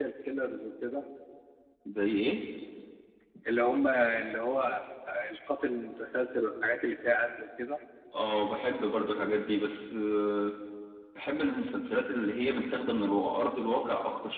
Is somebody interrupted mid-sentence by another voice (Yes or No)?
No